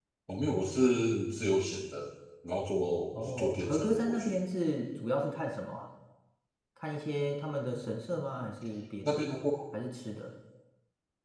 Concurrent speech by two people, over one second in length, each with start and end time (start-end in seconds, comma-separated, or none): 3.1-4.4